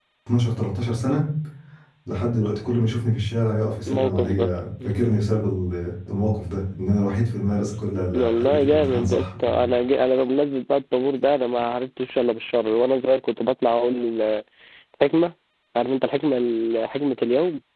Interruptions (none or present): present